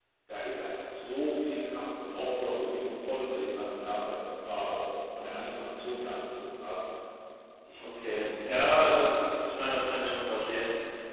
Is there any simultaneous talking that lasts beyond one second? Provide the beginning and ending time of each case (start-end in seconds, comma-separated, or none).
7.7-9.0